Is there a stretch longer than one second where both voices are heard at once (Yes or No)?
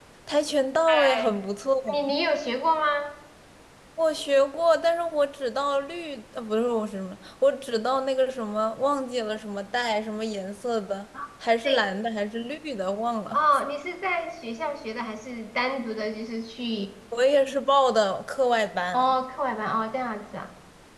No